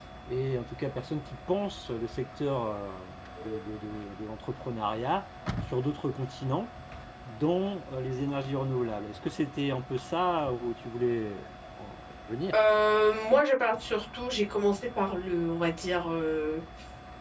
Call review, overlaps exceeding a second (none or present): none